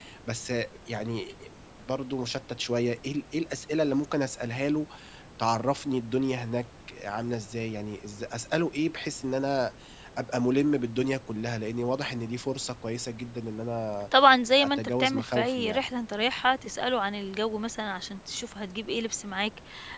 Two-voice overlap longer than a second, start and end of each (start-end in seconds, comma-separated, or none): 14.5-15.8